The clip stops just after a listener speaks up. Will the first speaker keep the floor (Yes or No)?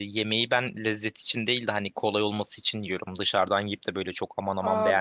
No